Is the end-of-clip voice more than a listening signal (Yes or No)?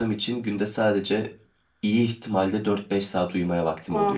Yes